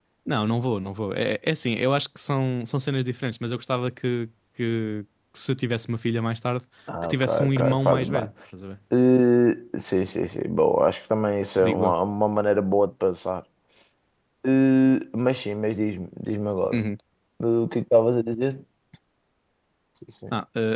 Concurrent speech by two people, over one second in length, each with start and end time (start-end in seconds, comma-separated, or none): 7.0-8.3